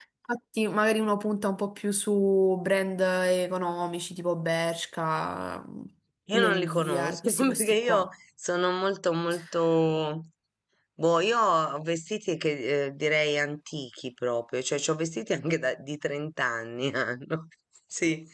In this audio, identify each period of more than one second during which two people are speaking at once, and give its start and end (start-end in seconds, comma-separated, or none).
6.3-8.1